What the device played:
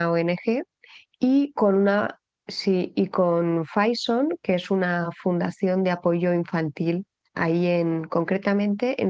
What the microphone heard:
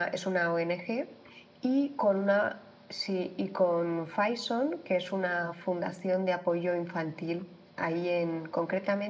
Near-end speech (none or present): none